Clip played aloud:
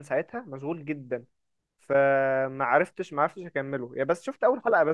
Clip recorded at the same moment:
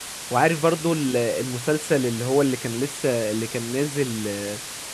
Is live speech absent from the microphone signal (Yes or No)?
No